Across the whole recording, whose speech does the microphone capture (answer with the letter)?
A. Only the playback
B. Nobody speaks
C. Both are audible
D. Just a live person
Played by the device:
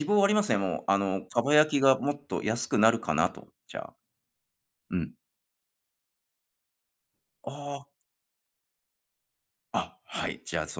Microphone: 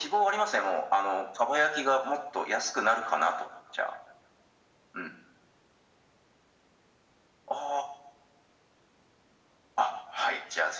A